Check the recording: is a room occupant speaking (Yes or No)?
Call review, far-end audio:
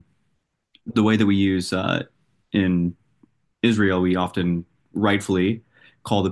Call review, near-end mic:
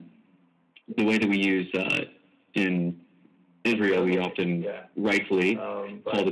Yes